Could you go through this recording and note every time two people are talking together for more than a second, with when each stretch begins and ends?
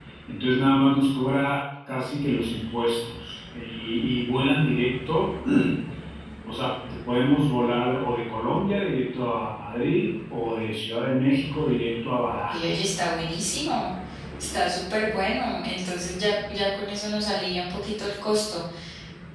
none

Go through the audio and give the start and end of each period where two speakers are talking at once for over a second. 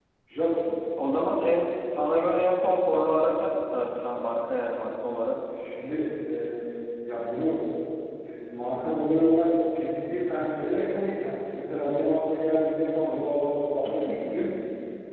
none

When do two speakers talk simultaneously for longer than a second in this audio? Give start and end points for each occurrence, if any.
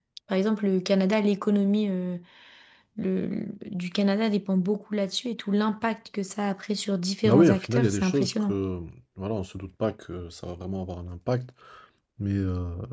7.2-8.6

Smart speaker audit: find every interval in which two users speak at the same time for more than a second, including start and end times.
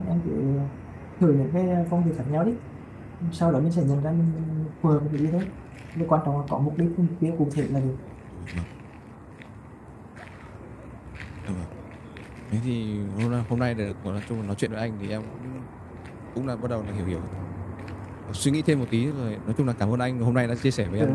none

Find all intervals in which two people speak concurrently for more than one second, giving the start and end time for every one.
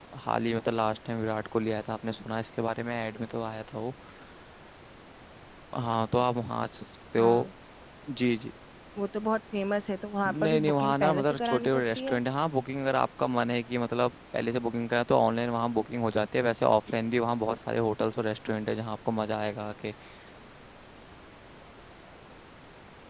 10.3-12.2

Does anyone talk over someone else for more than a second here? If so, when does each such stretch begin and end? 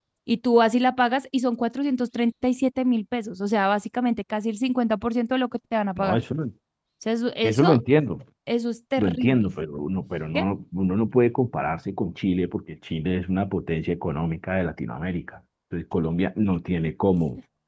none

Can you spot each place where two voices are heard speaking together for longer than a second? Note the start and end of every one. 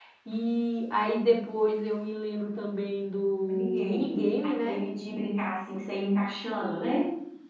3.4-4.8

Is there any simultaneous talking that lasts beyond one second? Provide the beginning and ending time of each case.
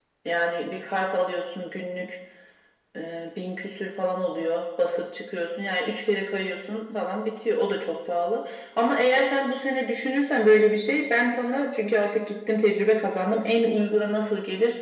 none

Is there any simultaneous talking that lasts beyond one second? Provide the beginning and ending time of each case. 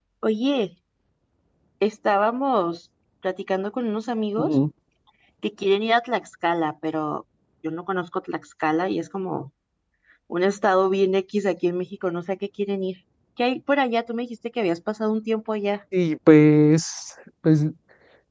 none

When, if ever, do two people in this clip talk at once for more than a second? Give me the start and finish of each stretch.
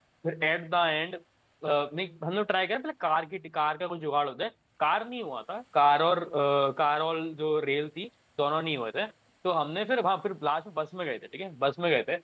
none

